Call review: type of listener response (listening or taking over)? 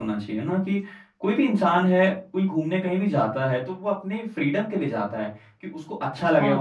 taking over